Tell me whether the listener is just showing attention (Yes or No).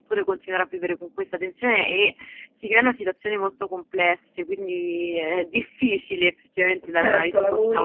No